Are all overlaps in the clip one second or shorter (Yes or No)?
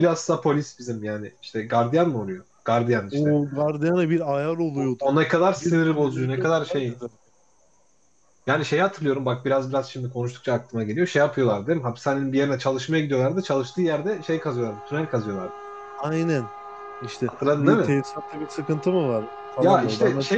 No